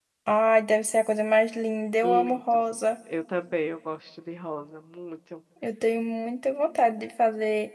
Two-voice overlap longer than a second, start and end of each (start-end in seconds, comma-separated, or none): none